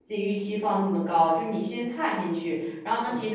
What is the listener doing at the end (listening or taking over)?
listening